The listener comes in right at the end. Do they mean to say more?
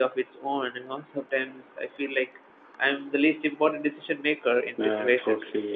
Yes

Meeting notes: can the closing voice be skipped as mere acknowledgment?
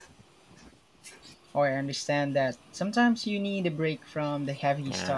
No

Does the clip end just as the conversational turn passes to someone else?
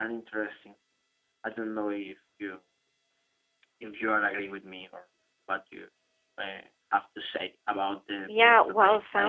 Yes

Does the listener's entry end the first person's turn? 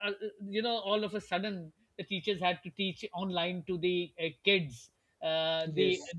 No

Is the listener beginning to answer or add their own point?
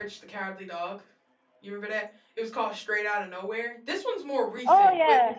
Yes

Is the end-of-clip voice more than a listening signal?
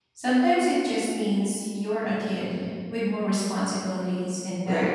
Yes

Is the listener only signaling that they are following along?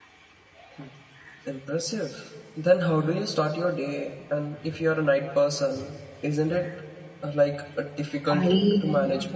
No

